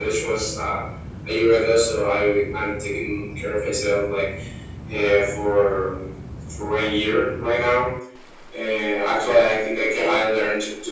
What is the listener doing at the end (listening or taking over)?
listening